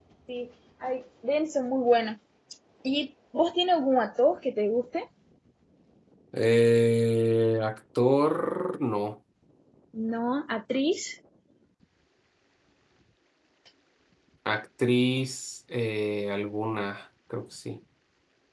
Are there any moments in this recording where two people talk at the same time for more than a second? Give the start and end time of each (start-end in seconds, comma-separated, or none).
none